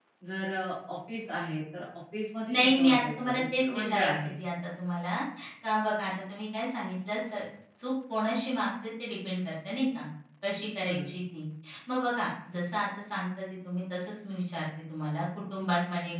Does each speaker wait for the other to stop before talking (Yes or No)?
No